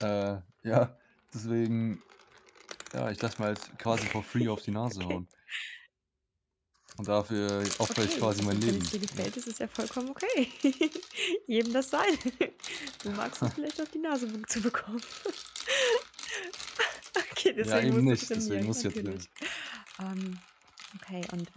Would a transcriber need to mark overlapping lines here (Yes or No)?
Yes